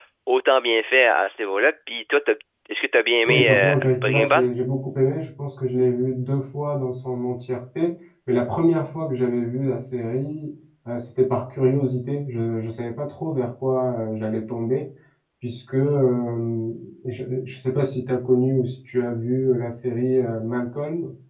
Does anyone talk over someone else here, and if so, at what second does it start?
3 s

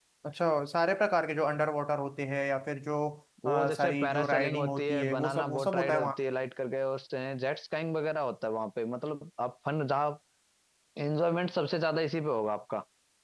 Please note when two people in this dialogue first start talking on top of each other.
3 s

